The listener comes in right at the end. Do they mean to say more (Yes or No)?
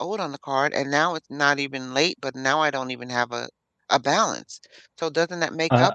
Yes